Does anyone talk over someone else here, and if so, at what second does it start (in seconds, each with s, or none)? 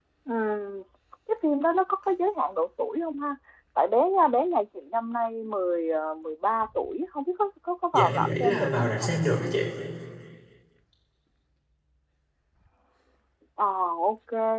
7.9 s